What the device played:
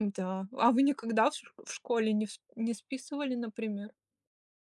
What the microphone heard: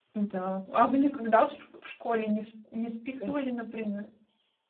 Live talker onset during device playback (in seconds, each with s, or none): 3.1 s